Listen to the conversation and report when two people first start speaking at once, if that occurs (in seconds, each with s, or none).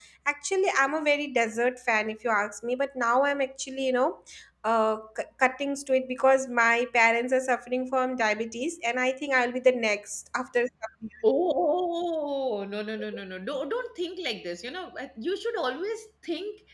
none